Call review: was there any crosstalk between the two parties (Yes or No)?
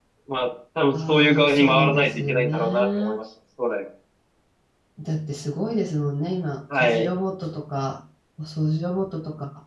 Yes